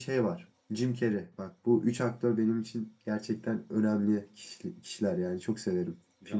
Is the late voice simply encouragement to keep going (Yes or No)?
No